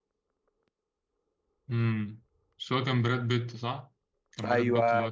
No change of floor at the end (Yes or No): No